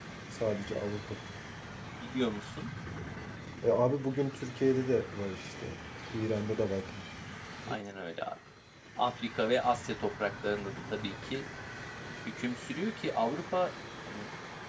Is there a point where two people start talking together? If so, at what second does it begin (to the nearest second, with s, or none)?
none